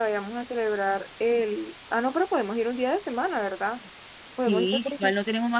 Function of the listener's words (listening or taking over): taking over